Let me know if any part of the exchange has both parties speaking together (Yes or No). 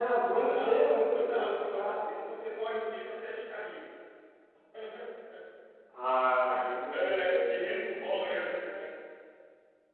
Yes